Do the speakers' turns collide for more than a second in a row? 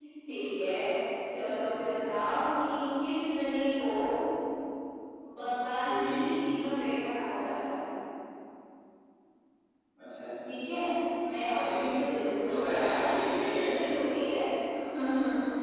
Yes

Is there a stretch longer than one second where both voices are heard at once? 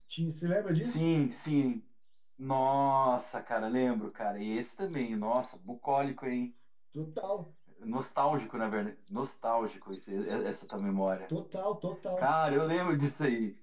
No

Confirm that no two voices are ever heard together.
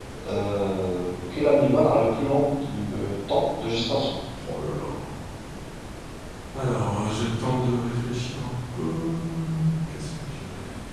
Yes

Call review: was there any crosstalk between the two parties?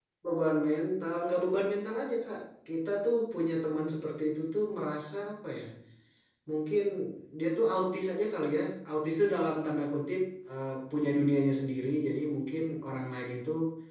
No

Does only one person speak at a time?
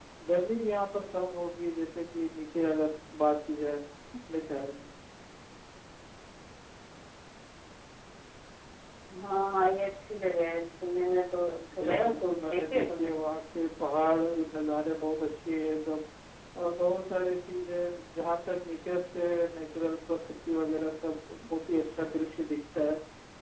No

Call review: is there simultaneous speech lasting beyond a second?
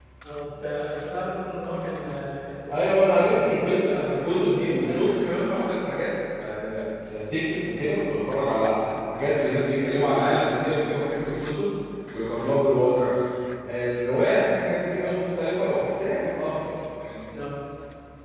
Yes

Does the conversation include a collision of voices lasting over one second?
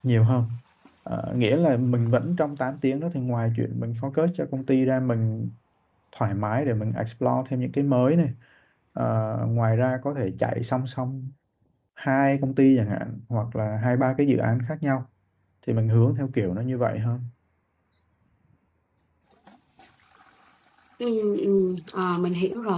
No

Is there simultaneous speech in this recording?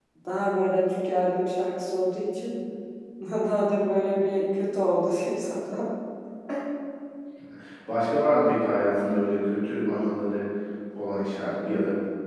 No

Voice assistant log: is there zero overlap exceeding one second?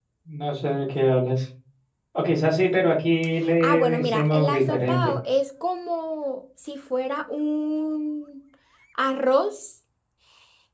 No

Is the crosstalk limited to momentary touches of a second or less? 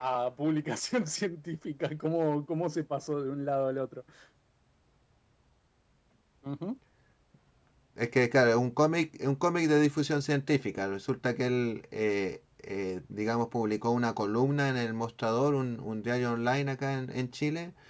Yes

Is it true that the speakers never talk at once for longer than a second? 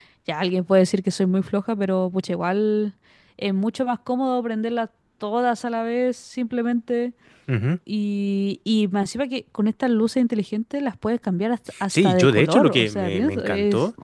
No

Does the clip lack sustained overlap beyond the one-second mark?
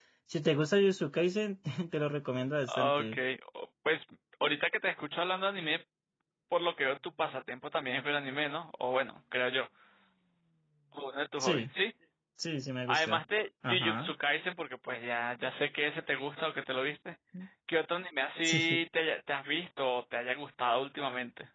Yes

